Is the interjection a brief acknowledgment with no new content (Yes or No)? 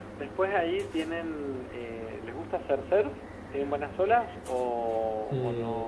No